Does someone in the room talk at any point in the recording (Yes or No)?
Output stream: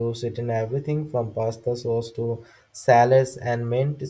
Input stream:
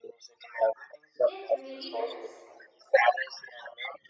Yes